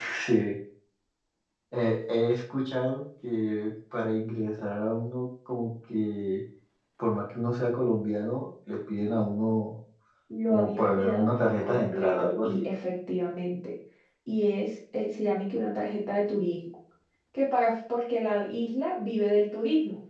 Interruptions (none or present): present